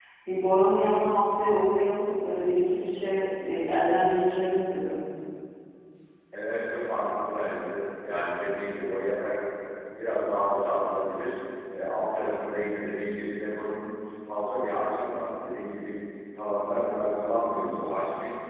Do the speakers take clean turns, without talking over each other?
Yes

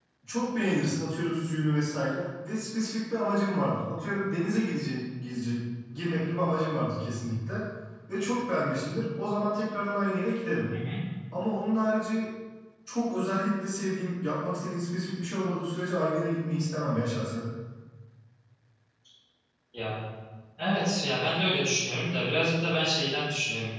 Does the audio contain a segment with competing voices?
No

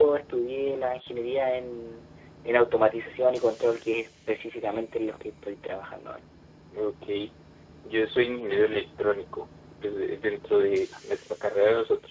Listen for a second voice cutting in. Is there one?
No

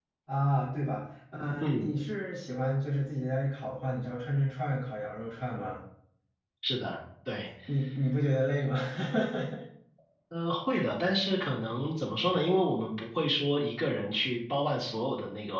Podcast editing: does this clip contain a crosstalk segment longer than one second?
No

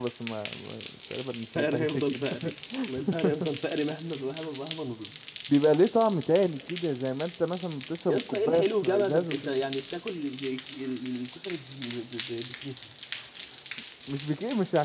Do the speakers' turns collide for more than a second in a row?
Yes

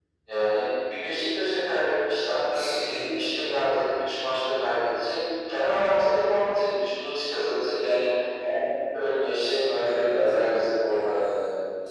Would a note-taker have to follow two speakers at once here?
Yes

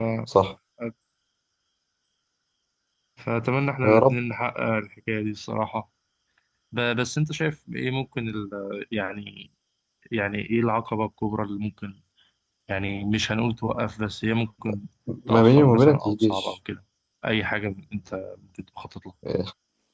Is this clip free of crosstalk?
No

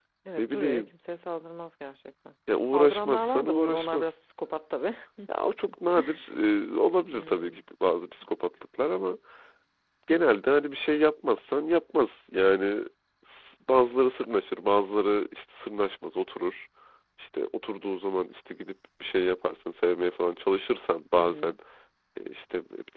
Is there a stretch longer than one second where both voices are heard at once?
Yes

